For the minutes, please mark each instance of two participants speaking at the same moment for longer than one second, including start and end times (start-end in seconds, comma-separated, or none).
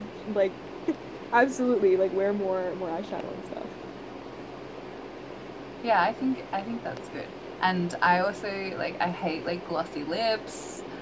none